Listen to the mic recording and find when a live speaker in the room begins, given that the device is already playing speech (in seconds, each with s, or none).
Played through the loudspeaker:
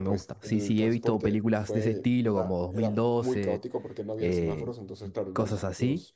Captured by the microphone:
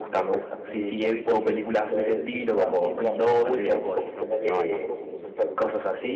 2.8 s